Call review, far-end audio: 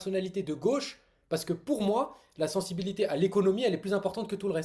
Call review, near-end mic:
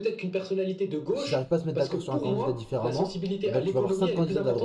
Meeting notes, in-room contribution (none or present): present